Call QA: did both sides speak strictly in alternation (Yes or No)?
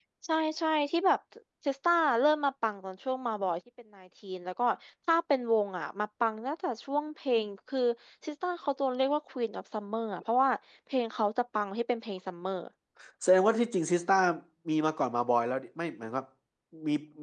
Yes